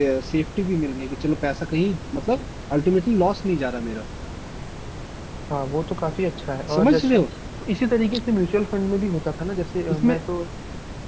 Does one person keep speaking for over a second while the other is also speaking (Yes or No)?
No